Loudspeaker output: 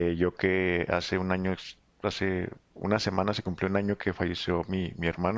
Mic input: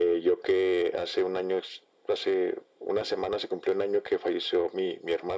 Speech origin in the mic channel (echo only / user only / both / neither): echo only